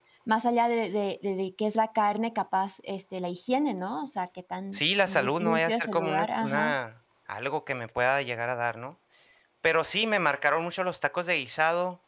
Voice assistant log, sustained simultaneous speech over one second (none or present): present